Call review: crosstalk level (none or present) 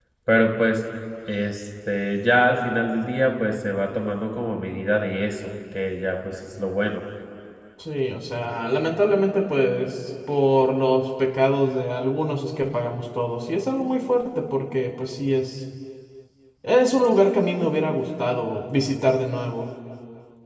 none